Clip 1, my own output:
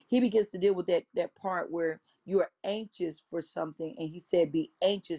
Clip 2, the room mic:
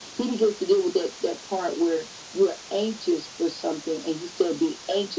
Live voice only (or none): none